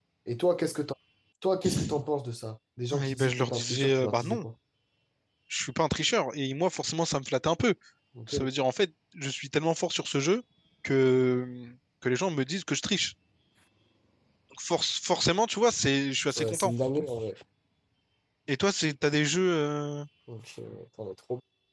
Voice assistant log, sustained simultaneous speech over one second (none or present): present